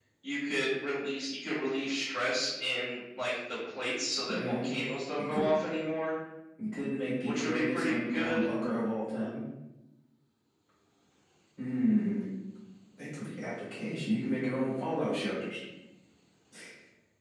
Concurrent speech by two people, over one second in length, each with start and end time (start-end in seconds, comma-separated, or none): 7.2-8.5